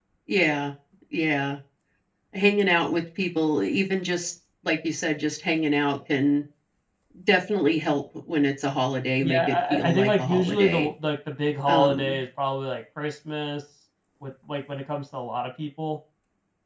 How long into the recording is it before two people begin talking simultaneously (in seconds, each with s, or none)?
9.2 s